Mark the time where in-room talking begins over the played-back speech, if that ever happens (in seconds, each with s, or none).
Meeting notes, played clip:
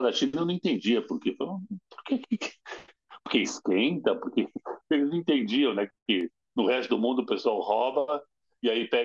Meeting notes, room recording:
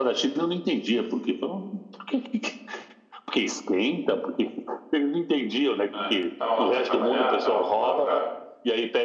5.9 s